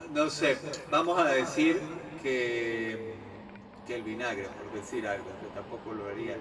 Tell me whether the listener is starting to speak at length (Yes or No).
Yes